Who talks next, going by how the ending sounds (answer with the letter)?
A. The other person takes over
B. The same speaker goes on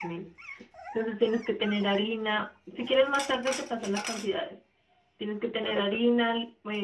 B